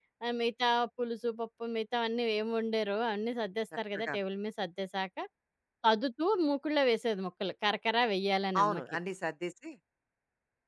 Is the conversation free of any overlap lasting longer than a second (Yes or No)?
Yes